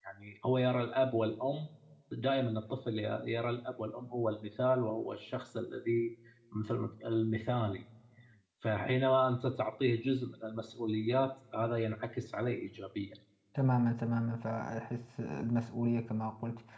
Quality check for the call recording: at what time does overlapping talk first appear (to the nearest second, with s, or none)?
none